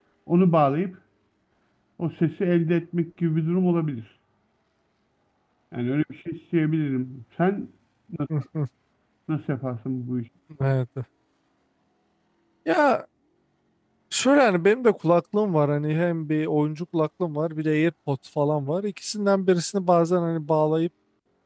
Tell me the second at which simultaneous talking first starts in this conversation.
none

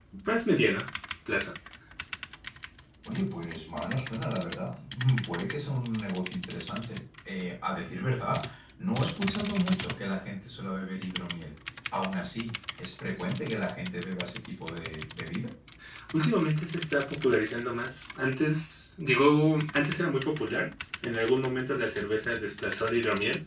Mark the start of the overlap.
none

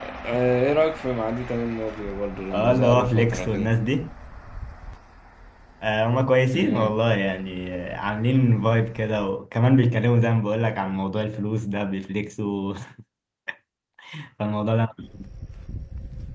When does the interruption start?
2.5 s

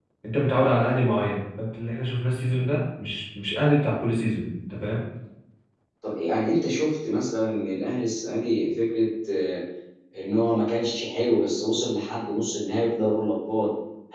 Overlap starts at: none

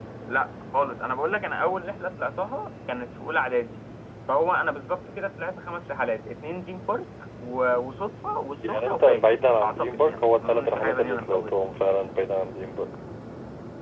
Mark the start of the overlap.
8.6 s

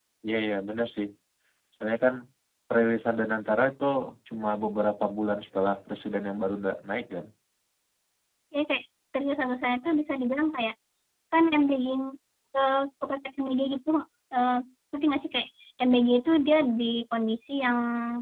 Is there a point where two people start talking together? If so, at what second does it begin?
none

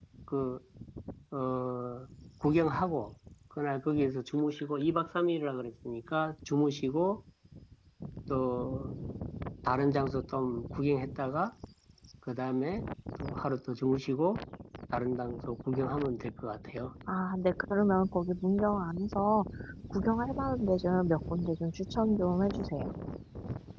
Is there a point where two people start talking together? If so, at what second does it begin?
none

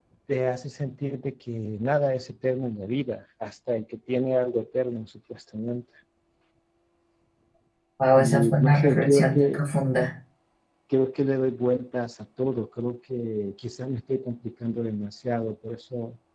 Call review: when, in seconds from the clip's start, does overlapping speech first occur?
8.2 s

